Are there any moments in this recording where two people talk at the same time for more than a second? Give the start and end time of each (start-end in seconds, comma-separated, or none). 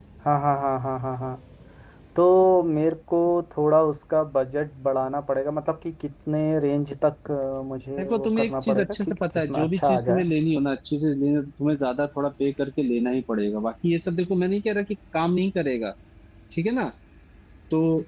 8.0-10.2